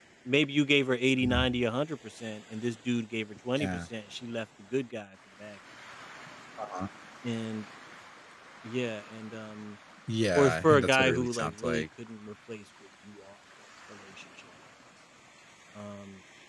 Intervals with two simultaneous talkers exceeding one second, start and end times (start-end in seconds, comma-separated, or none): 10.4-11.8